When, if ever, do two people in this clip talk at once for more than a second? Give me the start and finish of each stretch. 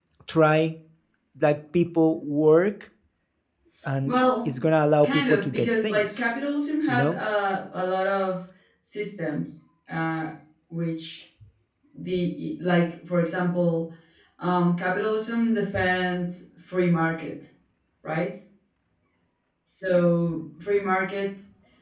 5.0-6.3

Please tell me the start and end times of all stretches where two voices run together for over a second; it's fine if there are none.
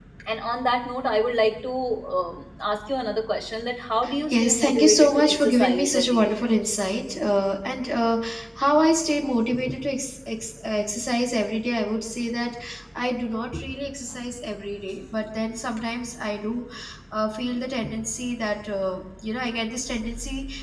4.3-6.4

